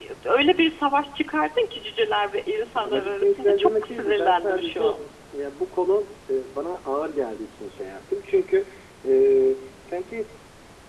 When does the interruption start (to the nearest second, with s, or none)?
3 s